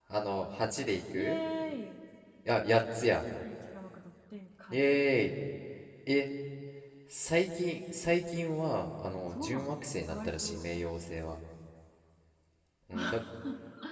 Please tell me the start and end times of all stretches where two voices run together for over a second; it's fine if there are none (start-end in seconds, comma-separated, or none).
9.3-10.6